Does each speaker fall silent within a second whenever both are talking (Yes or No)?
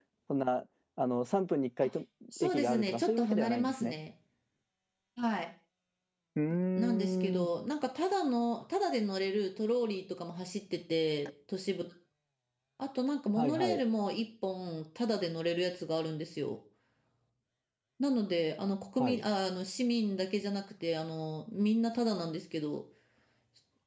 No